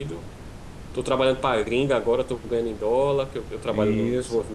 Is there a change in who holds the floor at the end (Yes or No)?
No